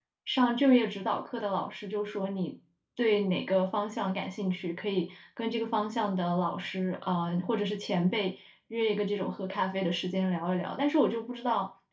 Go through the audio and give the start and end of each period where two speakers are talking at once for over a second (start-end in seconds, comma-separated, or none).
none